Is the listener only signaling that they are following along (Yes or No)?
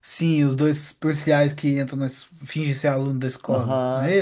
No